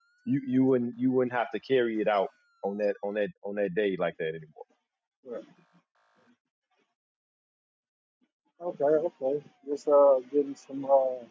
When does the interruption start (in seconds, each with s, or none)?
none